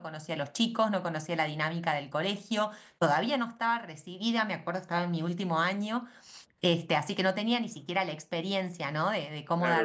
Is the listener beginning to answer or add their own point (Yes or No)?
Yes